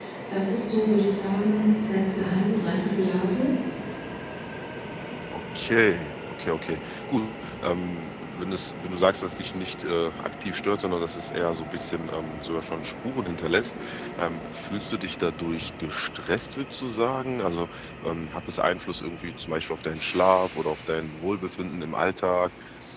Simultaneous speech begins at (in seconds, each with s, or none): none